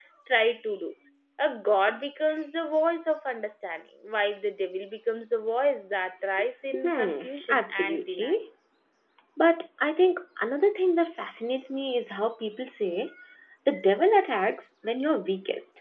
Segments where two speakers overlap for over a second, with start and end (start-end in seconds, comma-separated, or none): 6.8-8.4